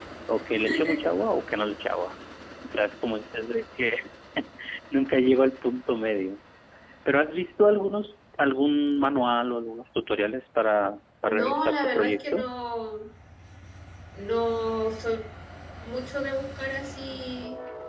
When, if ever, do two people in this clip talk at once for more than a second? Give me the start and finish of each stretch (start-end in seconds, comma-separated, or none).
11.3-12.5